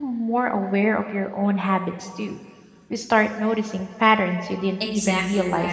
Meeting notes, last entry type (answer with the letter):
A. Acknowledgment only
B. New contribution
B